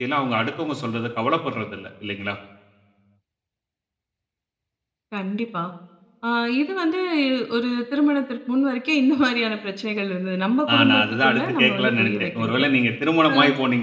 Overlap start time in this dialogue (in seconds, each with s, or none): 10.7 s